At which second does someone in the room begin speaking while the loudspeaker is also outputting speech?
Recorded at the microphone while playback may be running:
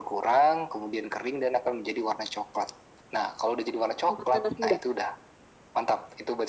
4.1 s

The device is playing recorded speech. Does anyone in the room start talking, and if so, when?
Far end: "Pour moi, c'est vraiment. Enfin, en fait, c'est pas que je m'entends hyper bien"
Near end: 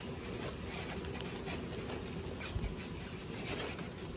none

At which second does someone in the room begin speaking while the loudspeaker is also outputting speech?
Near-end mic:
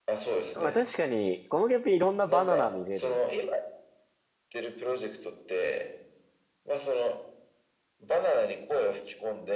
0.5 s

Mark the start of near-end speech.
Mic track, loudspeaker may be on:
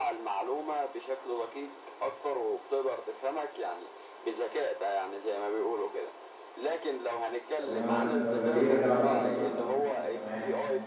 7.5 s

